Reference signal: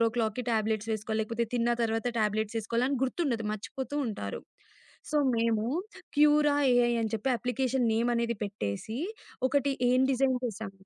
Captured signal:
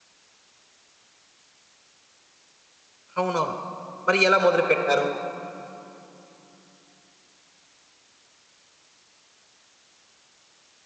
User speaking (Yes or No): Yes